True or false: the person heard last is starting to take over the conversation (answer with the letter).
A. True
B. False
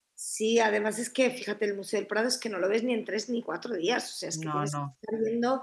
B